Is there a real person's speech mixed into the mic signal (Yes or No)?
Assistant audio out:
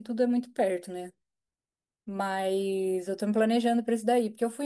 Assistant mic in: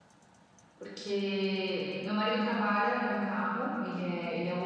Yes